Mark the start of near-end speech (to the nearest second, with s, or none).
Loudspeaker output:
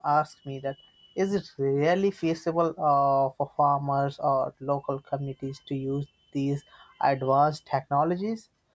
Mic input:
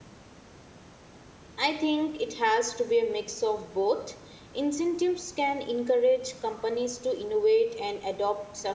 2 s